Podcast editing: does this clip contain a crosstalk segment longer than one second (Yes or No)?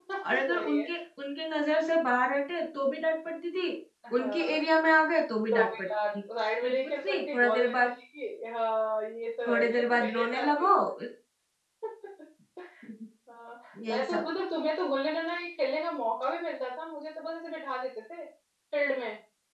Yes